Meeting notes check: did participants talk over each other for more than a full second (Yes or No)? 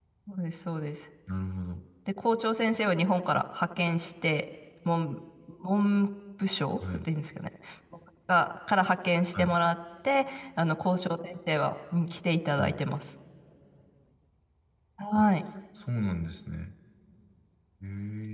No